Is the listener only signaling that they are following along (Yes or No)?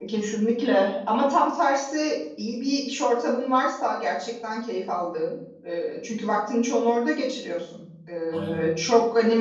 Yes